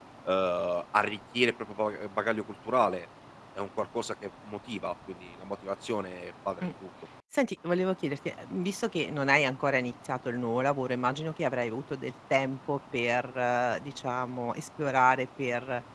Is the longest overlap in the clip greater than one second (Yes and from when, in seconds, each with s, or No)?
No